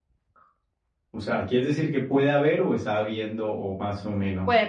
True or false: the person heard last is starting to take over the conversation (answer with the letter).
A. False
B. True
B